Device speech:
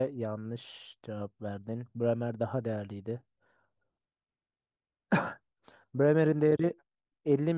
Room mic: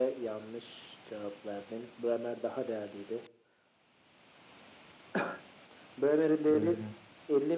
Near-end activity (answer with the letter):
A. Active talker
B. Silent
A